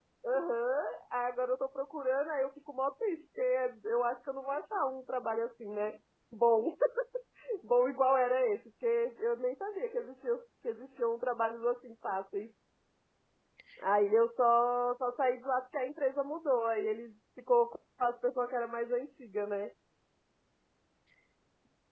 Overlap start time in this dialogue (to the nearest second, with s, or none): none